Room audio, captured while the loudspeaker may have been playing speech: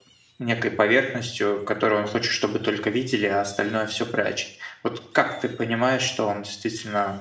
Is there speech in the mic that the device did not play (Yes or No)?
Yes